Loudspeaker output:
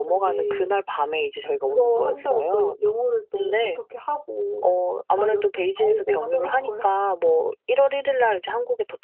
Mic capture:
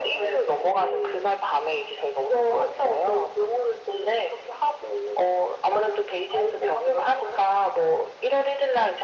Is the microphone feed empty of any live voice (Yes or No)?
Yes